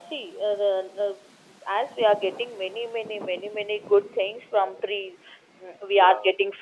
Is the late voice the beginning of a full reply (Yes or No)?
No